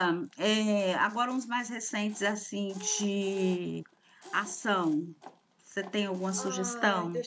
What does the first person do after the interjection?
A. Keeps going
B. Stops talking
B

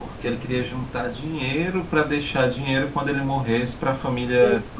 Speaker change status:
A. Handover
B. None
A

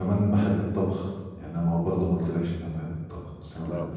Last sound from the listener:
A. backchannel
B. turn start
B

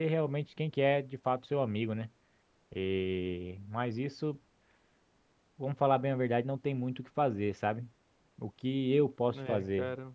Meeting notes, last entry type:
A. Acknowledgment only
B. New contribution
A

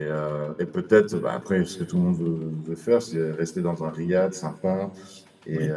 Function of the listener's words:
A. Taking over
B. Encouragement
B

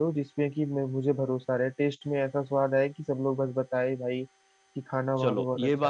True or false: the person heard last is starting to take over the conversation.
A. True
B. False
A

